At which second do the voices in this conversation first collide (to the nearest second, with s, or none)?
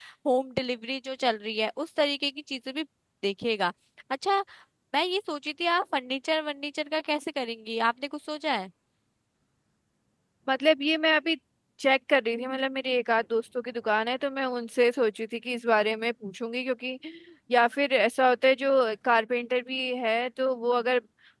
none